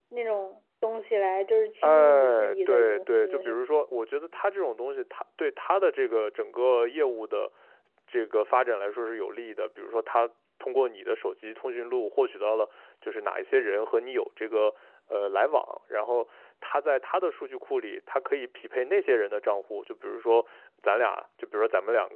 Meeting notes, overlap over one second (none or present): present